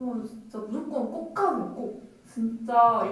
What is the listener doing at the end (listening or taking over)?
listening